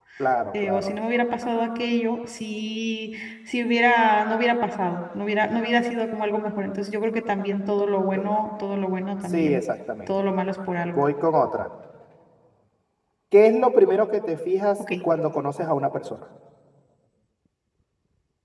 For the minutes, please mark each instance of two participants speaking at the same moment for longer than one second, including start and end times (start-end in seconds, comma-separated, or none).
none